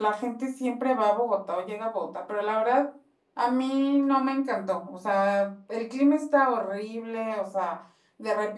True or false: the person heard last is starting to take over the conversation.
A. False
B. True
A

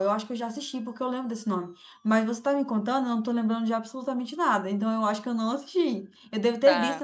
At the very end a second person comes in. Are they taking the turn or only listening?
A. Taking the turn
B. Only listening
B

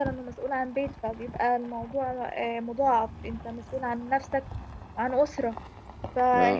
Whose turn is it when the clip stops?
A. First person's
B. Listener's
A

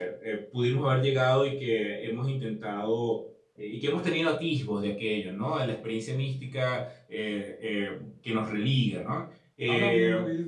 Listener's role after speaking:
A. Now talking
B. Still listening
A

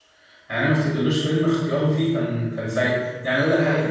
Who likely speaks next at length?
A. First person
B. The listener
A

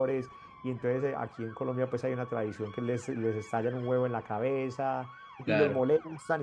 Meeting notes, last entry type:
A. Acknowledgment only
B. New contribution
A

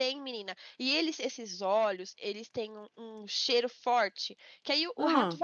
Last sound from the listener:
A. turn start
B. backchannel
B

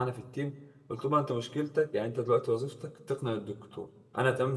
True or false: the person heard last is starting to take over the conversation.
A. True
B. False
B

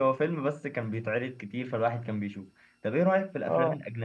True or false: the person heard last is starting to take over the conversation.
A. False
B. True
A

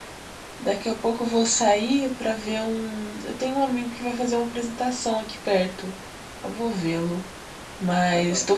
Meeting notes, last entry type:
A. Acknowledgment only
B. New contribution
A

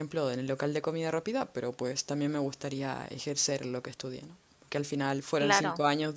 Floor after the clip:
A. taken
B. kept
B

